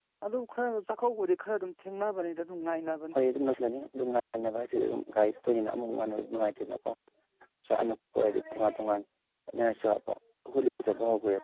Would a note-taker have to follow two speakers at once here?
No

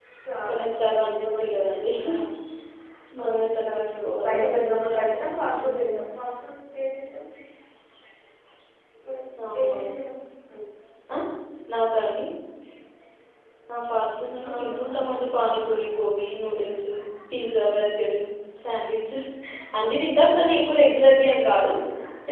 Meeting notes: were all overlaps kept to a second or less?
No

